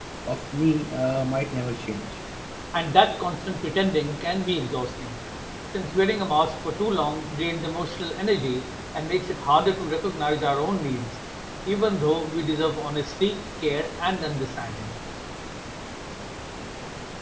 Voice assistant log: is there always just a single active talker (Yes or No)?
Yes